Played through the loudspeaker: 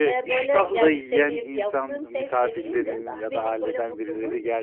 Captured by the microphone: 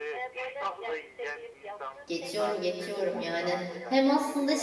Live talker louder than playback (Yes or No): Yes